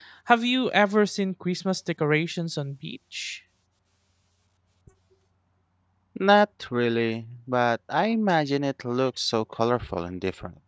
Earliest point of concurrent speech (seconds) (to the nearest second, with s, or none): none